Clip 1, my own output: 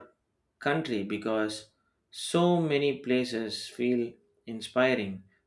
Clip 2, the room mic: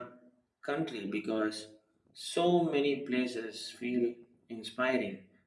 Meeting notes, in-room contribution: none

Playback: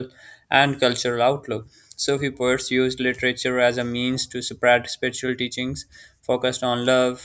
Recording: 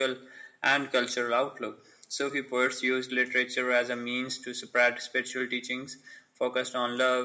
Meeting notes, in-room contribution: none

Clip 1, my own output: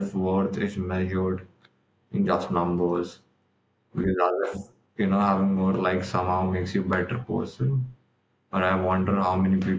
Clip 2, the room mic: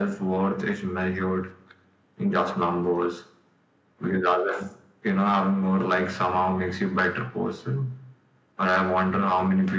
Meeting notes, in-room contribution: none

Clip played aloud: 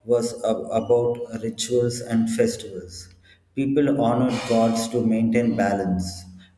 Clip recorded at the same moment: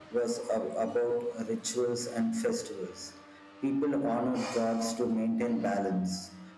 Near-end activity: none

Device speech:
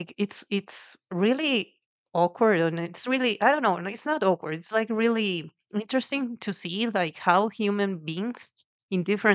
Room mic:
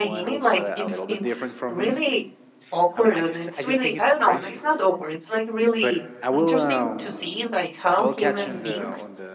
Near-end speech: present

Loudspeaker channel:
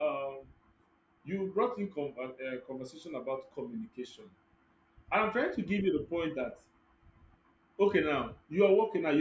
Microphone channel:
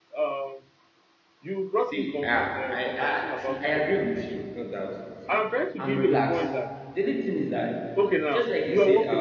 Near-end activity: present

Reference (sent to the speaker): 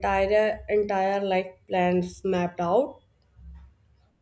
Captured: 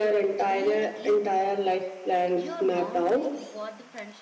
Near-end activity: present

